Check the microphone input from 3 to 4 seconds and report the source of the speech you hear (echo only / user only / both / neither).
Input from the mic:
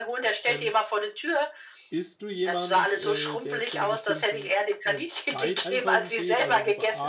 both